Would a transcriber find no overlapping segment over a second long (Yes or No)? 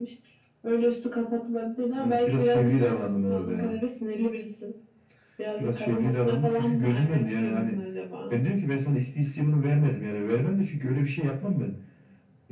No